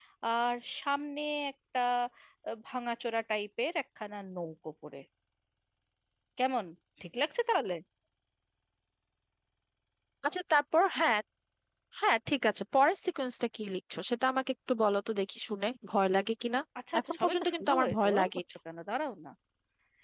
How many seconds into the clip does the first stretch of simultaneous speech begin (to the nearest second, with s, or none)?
17 s